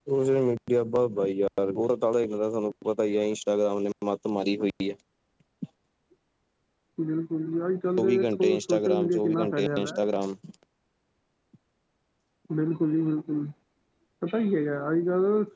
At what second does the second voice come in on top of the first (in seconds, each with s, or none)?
8.0 s